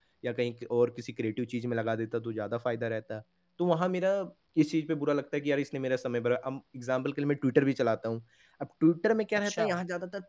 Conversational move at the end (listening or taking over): listening